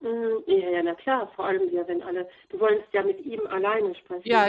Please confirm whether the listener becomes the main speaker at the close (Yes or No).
Yes